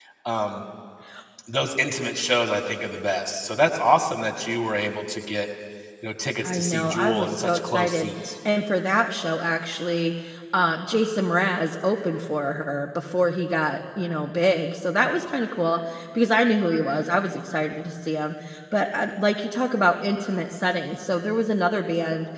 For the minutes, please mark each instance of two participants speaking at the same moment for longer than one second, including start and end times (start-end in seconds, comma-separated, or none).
6.5-8.3